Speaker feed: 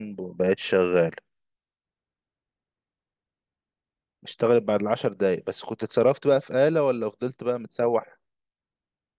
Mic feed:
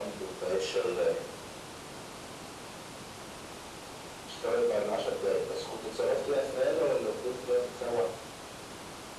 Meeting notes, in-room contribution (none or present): none